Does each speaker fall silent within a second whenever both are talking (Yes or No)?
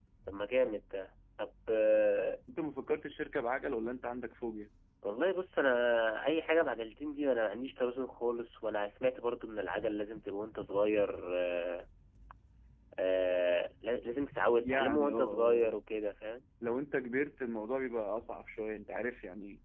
No